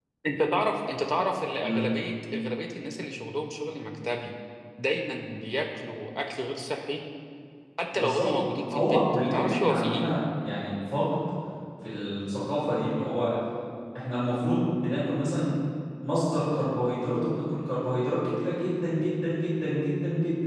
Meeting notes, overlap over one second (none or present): present